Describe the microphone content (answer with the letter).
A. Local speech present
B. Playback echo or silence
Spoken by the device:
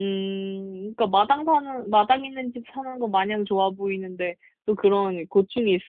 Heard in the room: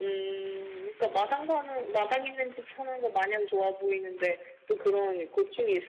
B